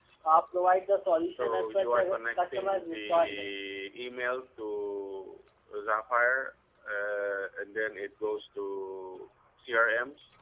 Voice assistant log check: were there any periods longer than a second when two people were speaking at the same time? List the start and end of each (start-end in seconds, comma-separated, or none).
1.3-3.5